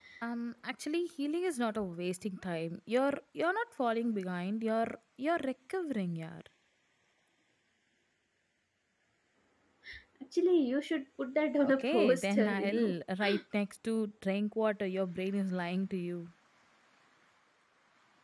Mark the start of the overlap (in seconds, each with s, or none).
11.6 s